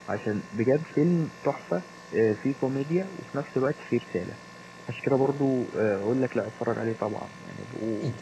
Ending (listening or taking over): taking over